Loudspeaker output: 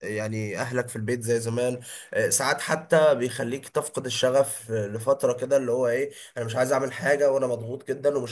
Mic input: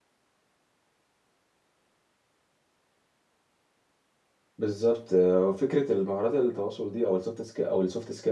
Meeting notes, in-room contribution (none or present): present